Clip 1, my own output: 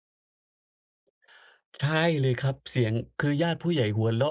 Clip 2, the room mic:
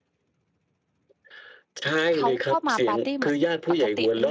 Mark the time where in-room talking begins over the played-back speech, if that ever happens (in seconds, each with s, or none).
2.2 s